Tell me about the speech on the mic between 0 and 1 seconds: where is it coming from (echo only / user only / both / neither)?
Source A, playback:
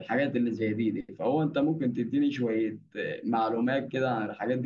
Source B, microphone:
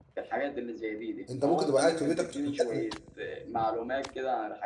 echo only